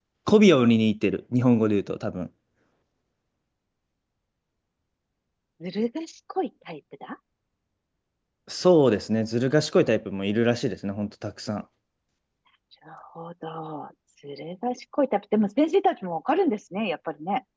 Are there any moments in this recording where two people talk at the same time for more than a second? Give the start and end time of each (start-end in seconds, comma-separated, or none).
none